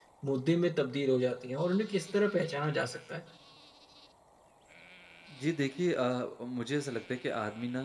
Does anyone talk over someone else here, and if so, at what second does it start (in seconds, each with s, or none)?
none